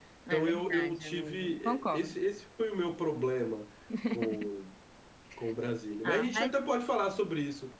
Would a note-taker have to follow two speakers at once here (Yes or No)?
Yes